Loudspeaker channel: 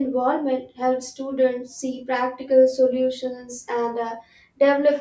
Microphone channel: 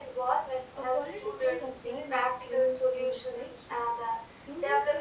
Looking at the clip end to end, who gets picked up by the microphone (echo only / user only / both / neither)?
both